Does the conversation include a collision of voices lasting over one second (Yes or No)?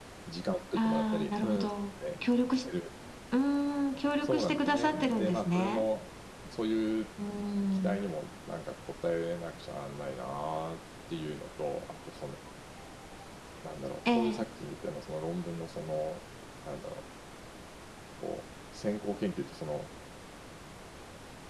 Yes